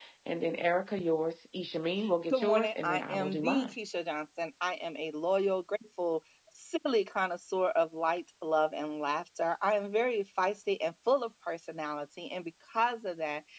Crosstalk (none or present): present